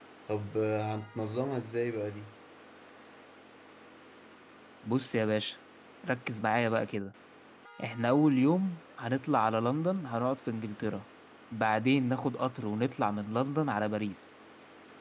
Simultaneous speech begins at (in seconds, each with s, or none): none